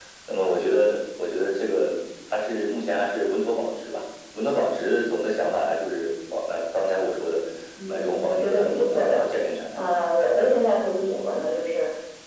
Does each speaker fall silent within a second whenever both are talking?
No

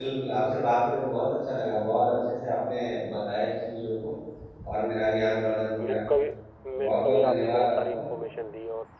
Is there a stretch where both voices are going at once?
Yes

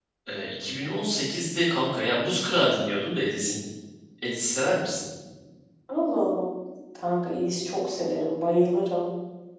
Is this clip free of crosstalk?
Yes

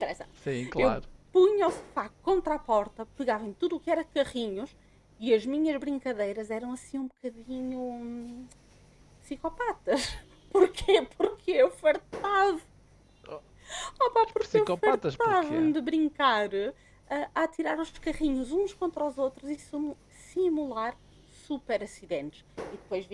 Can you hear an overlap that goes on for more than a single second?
Yes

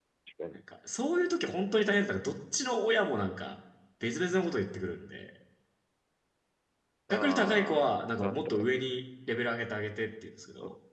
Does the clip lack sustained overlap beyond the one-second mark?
No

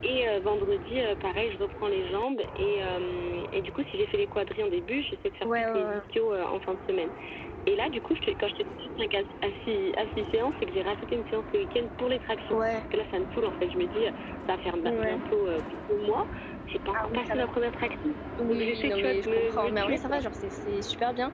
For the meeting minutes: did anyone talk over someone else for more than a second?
Yes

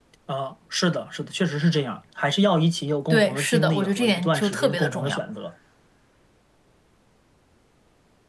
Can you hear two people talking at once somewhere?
Yes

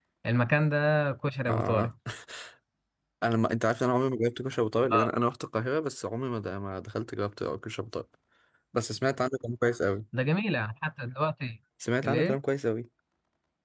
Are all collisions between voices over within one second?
Yes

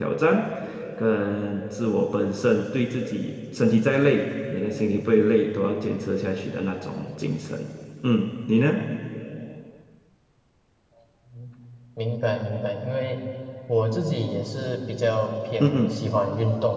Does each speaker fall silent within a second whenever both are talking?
Yes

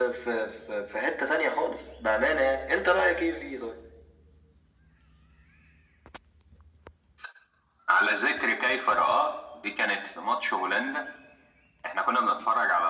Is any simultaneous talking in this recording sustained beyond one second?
No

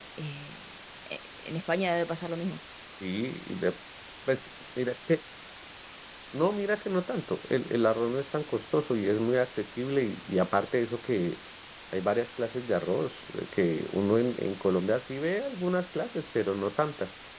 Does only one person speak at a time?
Yes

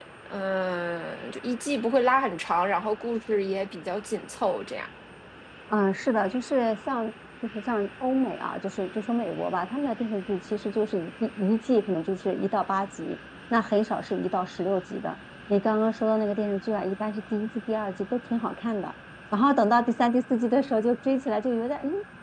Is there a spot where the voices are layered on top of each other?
No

